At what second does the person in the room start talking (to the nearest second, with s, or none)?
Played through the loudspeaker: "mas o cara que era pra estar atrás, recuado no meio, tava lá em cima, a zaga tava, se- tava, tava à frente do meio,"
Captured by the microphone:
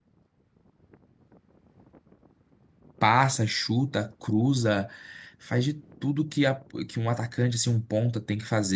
3 s